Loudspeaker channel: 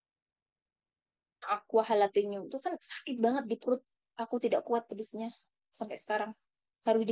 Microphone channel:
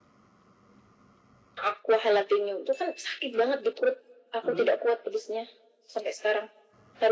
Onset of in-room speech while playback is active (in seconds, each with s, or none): 4.4 s